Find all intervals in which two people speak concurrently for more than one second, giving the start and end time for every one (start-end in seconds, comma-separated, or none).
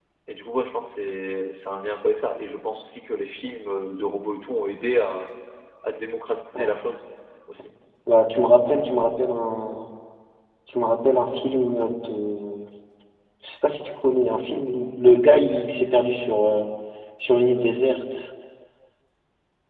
none